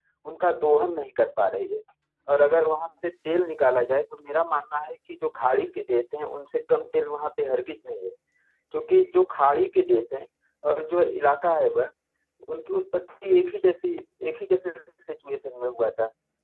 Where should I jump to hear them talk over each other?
none

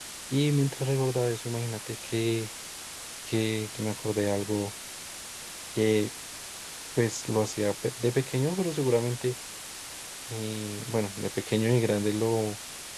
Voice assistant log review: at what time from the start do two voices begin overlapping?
none

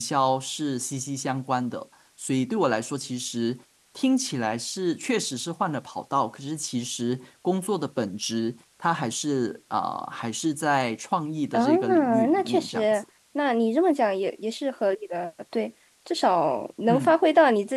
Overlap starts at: 11.5 s

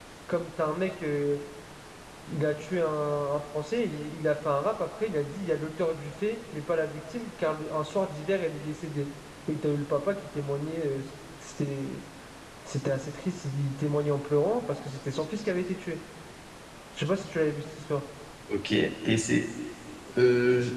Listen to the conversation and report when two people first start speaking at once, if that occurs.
none

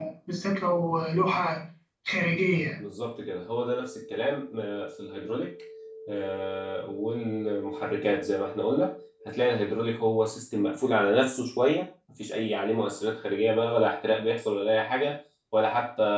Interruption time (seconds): none

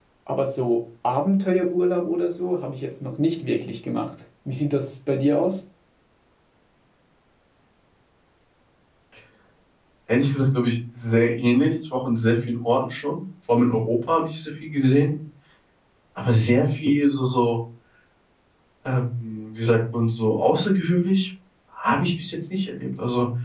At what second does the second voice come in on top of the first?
none

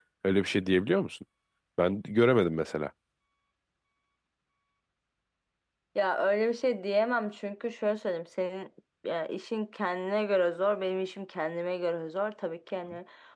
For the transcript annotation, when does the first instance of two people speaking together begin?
none

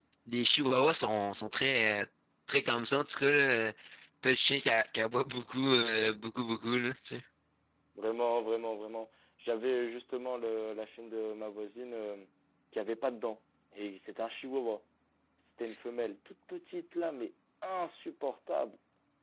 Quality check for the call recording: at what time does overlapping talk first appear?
none

